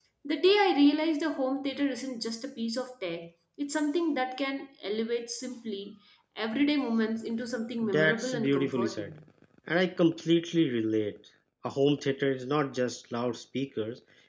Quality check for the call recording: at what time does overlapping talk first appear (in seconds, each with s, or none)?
7.8 s